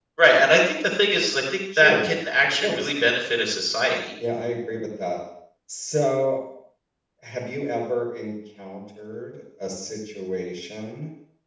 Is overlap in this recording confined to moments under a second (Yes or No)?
Yes